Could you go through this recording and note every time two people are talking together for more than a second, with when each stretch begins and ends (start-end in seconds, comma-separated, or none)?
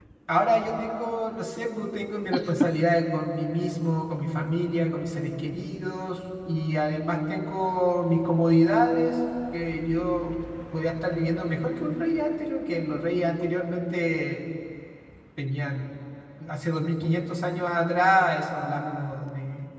none